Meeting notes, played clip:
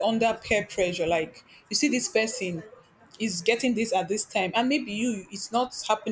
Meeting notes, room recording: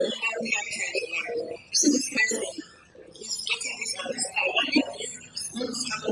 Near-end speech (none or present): none